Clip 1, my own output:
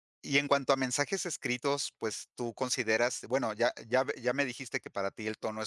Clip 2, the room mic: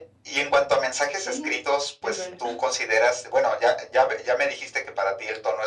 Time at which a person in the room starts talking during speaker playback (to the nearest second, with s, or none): 1 s